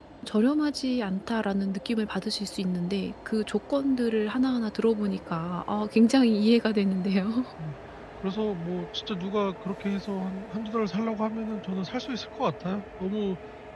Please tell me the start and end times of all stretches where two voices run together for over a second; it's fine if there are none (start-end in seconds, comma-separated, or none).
none